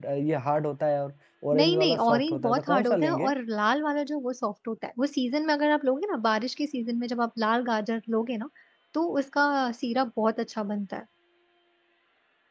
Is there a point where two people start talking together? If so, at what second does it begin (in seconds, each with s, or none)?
1.5 s